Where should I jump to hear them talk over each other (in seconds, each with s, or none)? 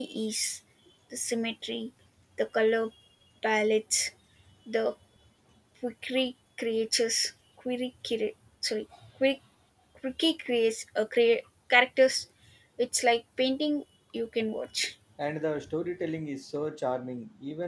none